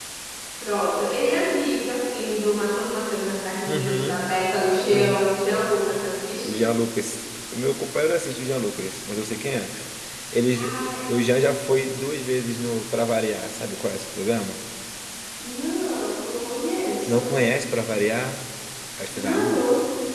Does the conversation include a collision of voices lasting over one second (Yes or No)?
No